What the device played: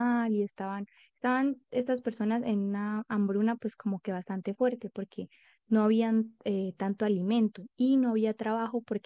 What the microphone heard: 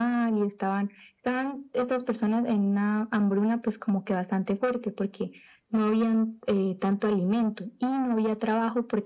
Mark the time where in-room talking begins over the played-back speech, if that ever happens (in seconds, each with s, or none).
none